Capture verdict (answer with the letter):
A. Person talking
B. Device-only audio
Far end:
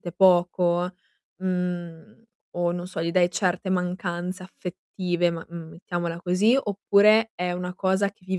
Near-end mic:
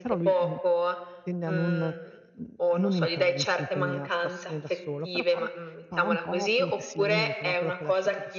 A